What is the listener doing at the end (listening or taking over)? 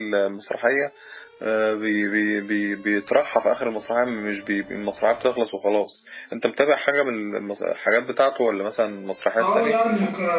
taking over